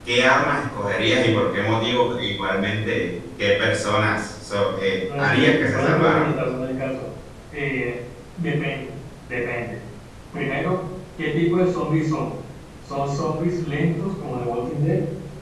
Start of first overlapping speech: 5 s

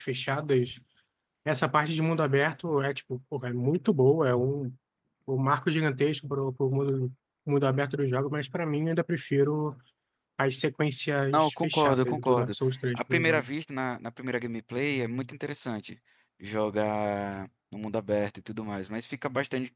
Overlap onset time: 11 s

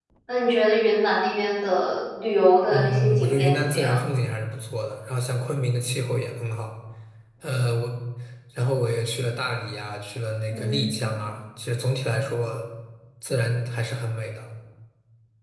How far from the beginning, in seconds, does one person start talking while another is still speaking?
3 s

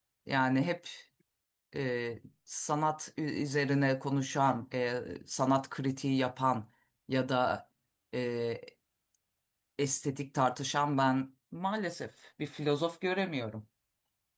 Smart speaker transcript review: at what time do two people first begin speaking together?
none

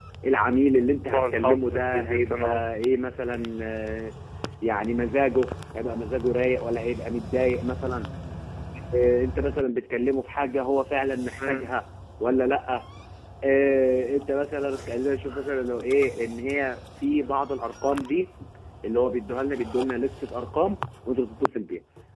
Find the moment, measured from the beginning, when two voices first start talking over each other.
1 s

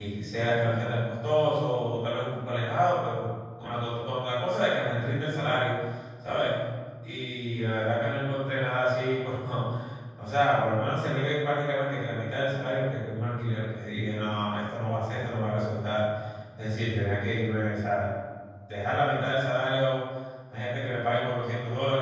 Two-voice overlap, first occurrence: none

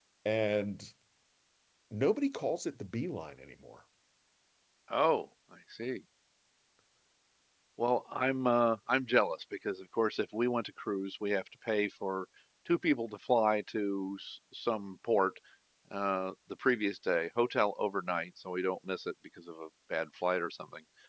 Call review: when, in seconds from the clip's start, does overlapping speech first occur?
none

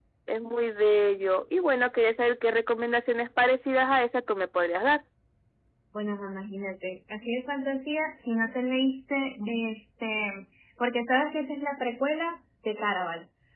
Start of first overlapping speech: none

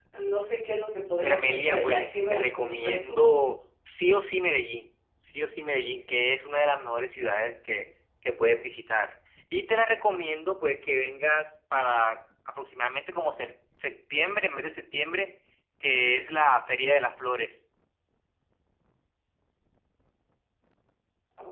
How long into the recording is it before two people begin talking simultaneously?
1 s

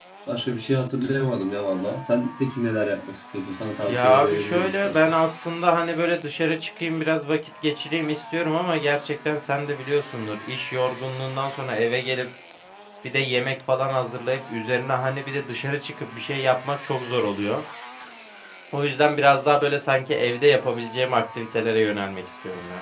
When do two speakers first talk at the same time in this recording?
4 s

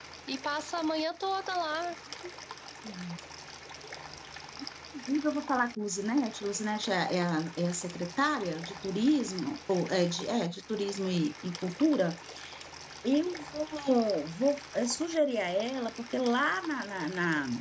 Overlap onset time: none

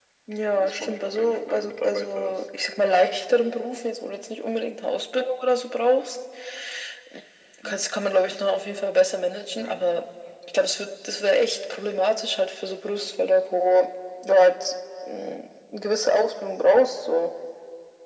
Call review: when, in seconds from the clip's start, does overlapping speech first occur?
1 s

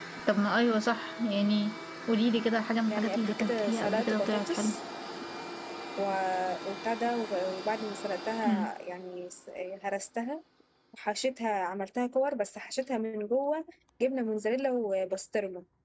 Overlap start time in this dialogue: 3 s

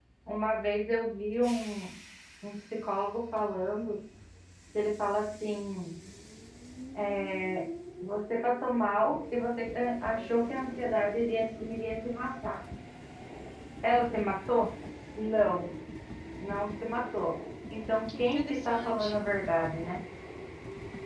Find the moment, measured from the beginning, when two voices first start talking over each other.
18 s

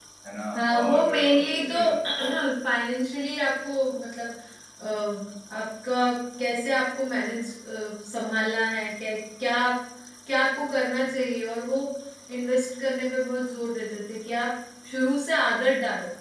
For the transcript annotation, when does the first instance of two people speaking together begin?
1 s

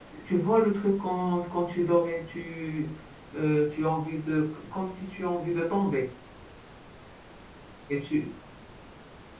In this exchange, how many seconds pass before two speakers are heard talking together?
none

